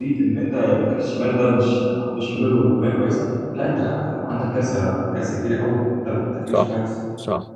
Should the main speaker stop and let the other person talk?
Yes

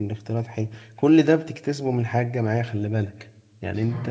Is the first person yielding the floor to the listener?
No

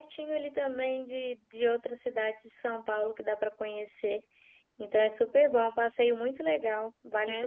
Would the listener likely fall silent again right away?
No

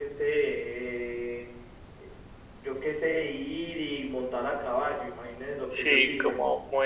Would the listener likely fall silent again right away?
No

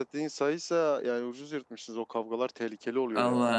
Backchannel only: No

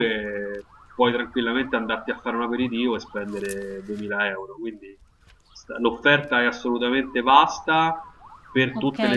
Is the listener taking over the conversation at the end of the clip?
Yes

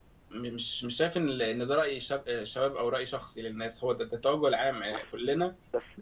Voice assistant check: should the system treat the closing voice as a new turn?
Yes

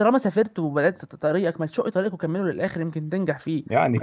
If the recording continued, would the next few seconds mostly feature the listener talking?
Yes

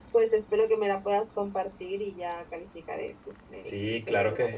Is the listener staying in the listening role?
No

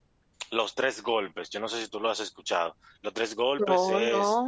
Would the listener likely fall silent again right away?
Yes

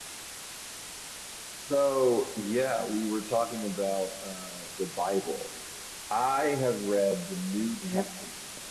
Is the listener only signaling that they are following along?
Yes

